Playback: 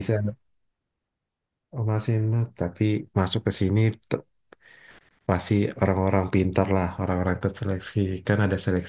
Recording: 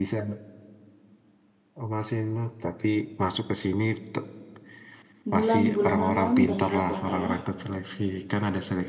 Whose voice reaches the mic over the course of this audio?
both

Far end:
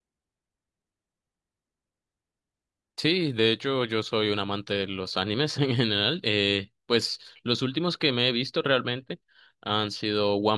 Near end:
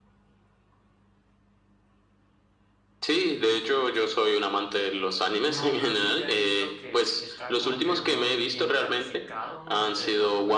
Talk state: both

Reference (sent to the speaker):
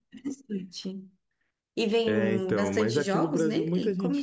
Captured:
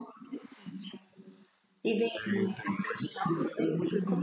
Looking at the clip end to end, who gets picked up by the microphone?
echo only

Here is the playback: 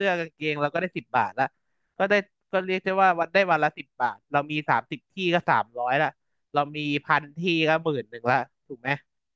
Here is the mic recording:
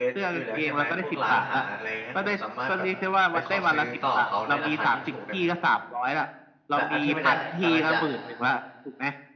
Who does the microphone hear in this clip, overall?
both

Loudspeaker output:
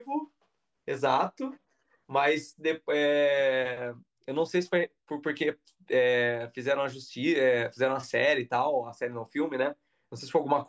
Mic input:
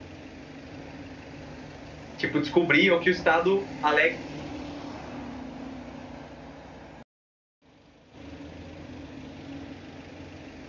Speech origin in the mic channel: user only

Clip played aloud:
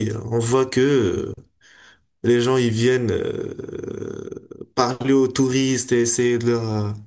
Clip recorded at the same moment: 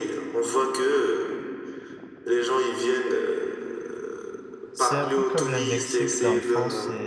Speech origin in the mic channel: both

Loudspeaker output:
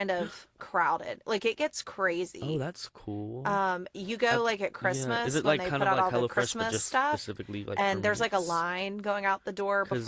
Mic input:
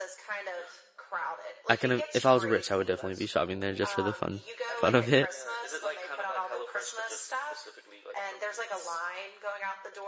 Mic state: both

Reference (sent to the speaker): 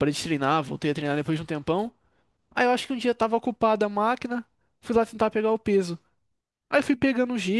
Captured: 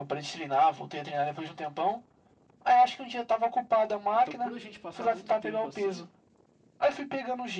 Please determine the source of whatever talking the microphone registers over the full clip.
both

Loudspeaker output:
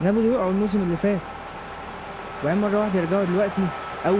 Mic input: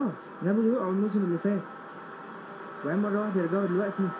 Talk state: echo only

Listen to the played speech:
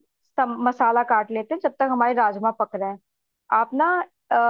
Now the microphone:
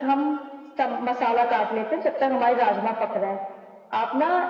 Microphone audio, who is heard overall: echo only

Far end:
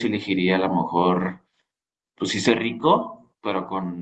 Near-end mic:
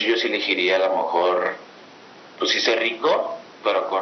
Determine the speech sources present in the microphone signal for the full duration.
echo only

